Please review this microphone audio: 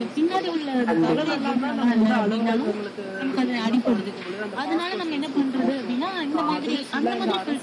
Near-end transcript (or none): கண்டிப்பா.